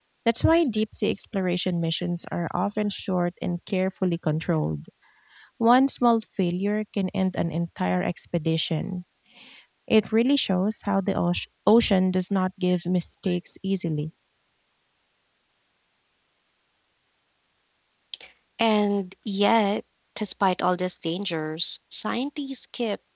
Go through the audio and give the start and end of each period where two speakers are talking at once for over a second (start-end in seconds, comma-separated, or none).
none